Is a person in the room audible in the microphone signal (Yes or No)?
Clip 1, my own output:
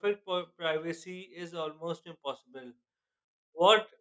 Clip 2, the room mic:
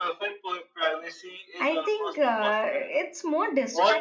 Yes